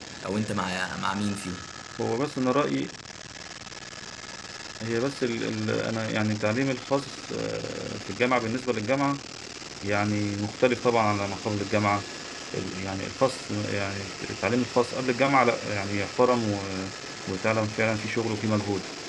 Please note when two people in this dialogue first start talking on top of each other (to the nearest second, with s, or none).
none